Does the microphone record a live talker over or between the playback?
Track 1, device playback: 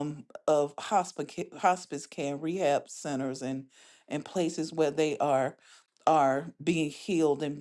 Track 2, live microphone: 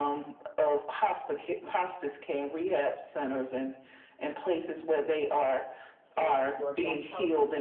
Yes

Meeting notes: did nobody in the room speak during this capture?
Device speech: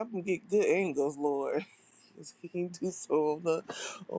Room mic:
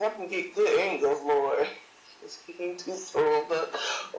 Yes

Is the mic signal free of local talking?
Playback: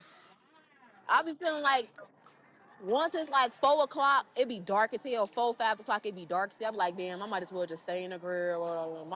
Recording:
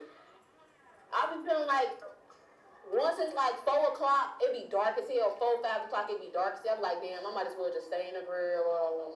Yes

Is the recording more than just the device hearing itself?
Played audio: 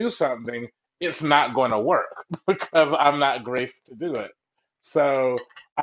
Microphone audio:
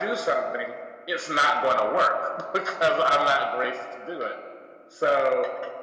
No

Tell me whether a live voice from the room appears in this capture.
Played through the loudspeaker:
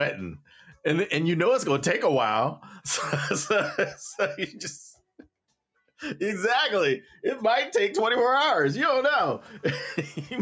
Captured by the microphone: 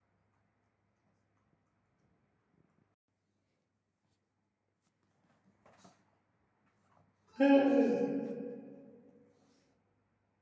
Yes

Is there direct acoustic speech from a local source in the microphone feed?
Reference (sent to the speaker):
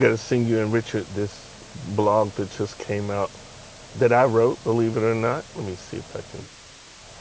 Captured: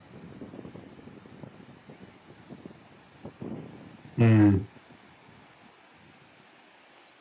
Yes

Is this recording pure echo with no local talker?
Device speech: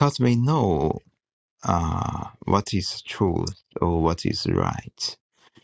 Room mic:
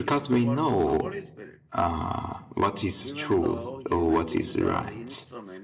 No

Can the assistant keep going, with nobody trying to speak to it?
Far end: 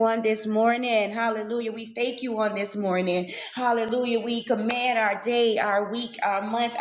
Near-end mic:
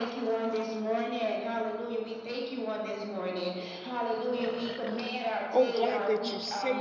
No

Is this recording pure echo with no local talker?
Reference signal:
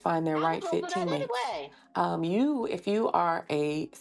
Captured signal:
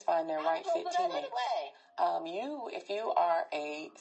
Yes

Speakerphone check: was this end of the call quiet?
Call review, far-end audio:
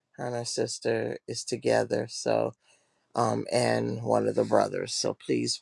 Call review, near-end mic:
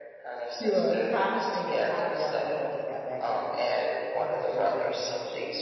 No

